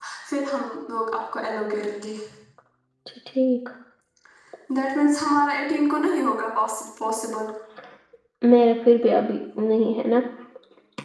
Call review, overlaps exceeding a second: none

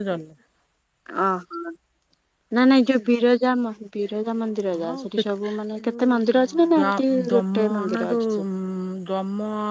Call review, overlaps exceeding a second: present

